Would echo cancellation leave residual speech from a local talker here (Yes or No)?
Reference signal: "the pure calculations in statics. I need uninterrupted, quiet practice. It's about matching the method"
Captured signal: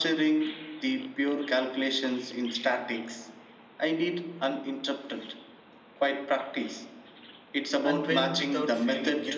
Yes